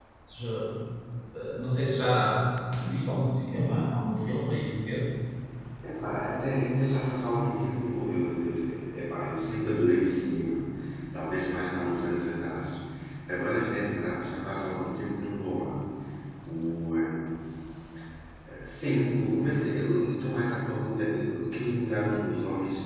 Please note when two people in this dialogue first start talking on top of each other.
none

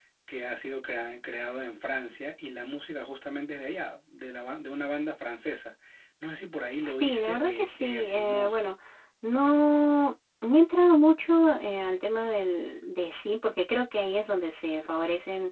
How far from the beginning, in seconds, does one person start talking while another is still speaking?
6.8 s

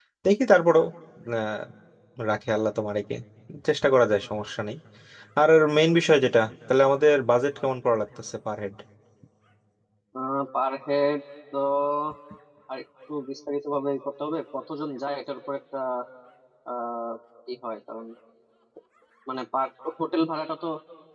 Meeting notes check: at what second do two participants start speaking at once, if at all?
none

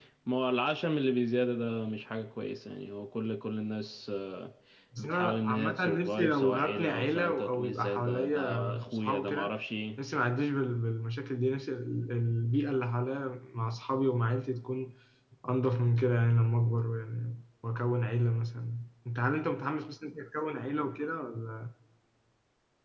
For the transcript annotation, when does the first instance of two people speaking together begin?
5.0 s

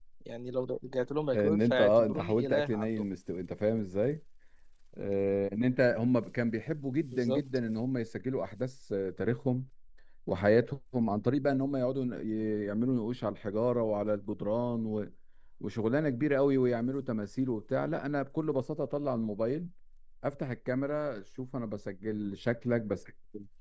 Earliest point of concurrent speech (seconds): 1.4 s

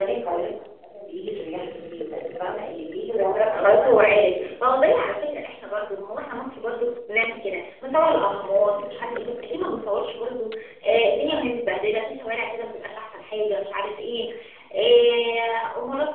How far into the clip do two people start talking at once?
3.2 s

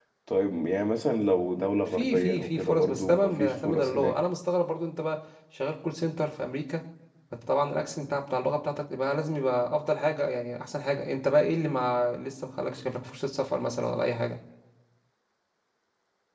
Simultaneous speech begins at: 1.9 s

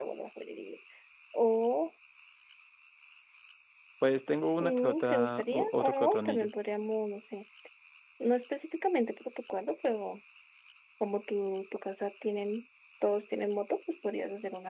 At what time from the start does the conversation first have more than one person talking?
4.6 s

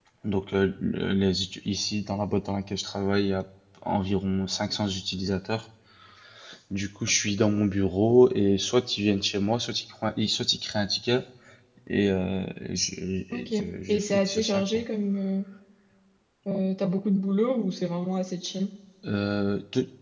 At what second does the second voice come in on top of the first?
13.3 s

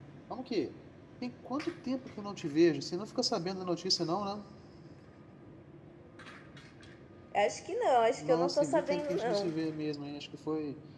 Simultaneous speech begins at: 8.2 s

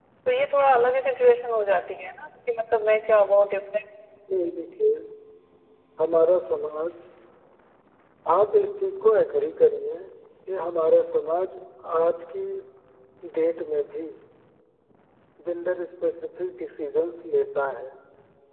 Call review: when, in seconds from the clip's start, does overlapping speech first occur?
none

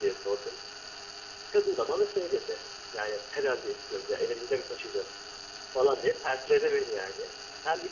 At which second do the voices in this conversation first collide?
none

